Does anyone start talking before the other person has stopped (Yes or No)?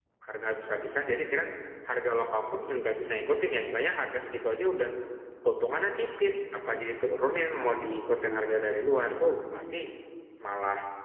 No